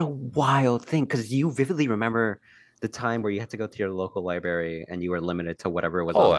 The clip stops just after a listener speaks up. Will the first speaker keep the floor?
No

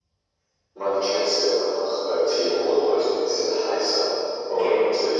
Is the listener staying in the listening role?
Yes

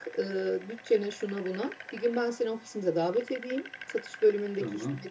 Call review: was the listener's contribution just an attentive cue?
Yes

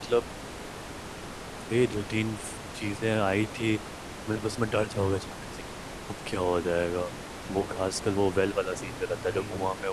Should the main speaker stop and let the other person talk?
No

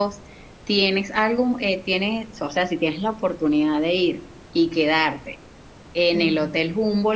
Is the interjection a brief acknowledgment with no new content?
Yes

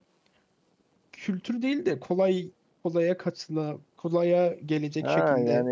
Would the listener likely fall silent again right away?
No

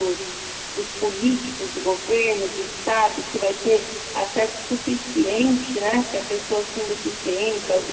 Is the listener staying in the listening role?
Yes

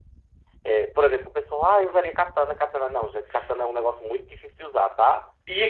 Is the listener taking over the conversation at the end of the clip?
Yes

